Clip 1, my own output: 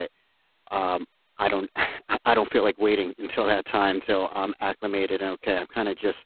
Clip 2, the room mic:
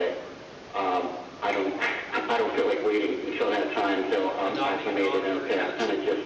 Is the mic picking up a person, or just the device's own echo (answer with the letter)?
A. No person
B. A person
B